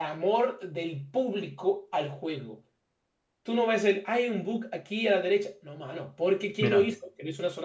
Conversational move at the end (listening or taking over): listening